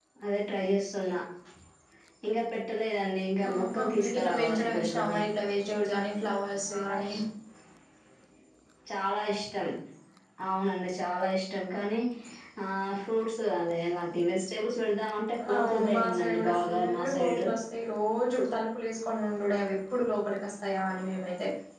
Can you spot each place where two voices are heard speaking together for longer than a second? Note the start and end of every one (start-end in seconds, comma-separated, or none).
3.5-5.2, 15.5-17.4